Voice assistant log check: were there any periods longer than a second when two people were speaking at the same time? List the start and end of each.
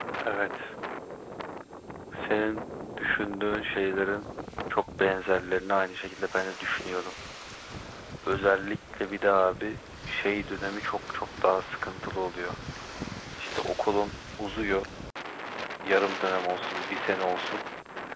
none

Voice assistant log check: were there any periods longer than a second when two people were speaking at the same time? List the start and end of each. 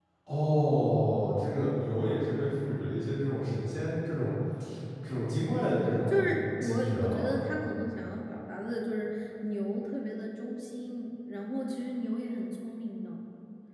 6.1-7.3

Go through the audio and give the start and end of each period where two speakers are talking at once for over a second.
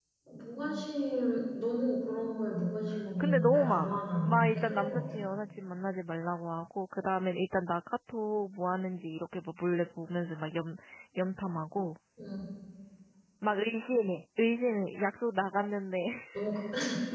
3.2-5.0

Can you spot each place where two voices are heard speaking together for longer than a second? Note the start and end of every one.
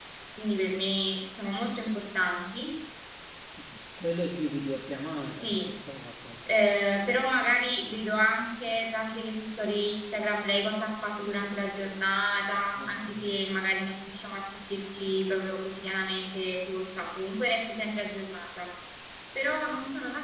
none

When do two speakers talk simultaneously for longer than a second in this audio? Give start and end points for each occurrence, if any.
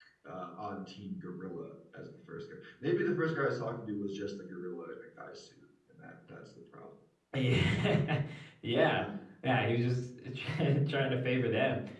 none

